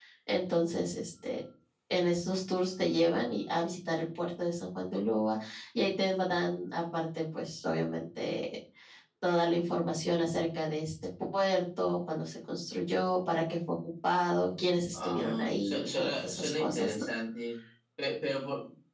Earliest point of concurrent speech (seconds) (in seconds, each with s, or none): 14.9 s